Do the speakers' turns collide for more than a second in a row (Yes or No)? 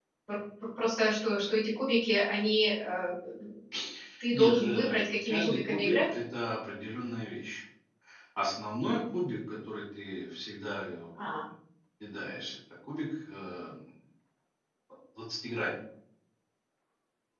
Yes